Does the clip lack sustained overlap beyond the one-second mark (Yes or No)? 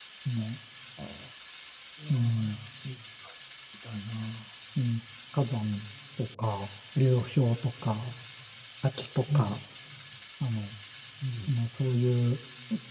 Yes